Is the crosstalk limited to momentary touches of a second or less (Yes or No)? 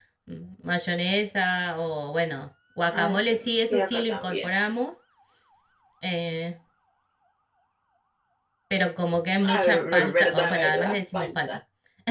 No